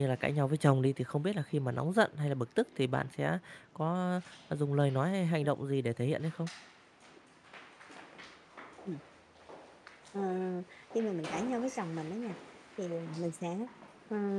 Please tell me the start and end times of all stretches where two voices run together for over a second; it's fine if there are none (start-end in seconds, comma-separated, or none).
none